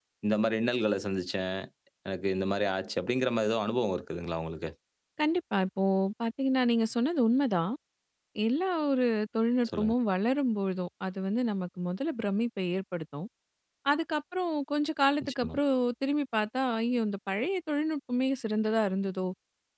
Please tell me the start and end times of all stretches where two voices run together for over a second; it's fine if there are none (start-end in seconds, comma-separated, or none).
none